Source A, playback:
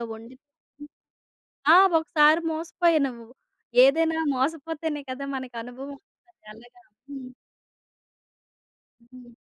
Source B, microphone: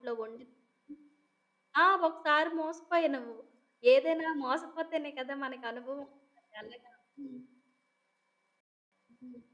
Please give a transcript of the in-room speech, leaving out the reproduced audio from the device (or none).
none